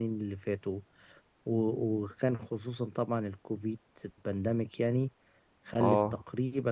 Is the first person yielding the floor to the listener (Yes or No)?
No